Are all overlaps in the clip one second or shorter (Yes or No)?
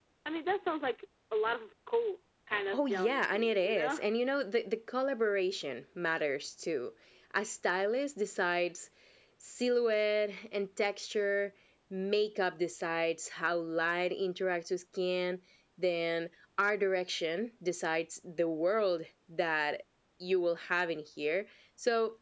No